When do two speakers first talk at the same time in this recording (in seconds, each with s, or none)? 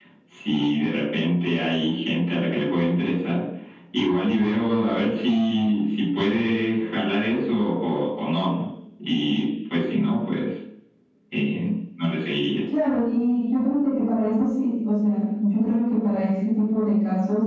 none